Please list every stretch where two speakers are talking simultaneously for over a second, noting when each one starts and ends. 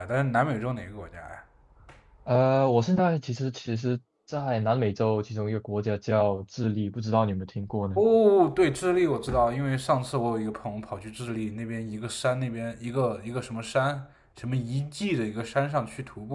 none

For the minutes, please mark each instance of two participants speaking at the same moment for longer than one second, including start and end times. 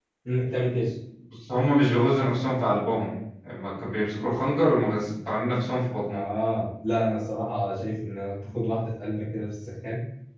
none

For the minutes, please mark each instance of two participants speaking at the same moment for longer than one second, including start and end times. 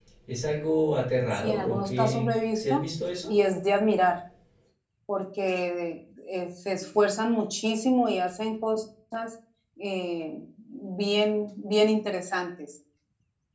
1.3-2.8

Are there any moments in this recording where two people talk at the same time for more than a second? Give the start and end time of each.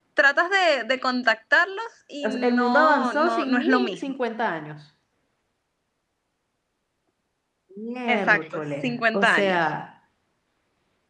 2.2-4.0, 8.1-9.6

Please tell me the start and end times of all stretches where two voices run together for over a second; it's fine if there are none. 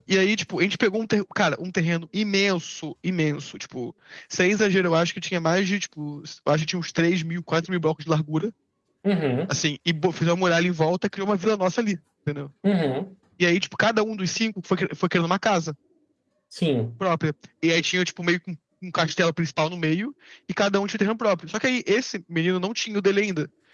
none

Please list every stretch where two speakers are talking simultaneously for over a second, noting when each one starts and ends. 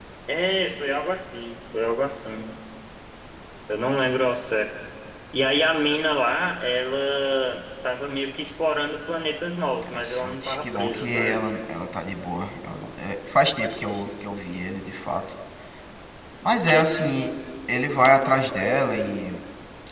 9.8-11.5

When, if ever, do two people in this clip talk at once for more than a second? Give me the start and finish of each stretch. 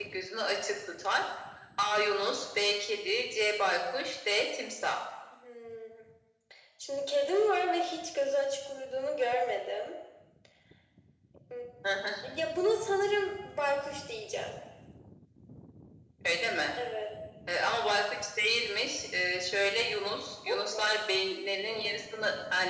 none

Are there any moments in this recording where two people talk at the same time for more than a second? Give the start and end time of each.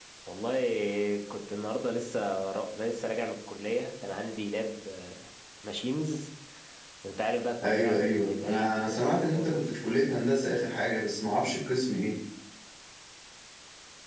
7.6-9.5

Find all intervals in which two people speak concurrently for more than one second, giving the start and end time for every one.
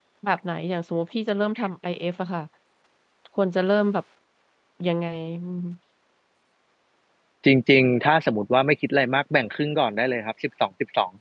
none

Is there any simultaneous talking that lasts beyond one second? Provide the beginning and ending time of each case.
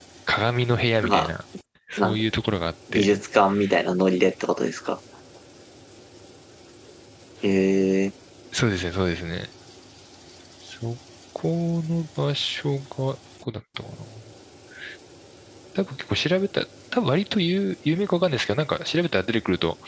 none

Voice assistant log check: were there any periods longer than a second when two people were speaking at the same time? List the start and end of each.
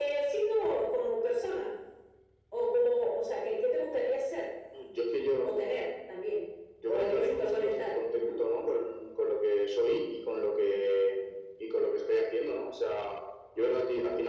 6.9-8.4

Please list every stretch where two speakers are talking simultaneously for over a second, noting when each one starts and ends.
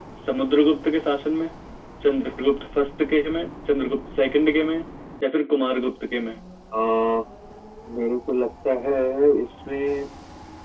none

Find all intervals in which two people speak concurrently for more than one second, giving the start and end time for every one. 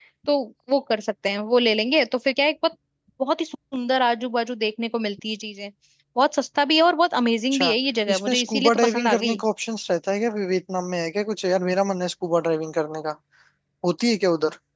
8.1-9.4

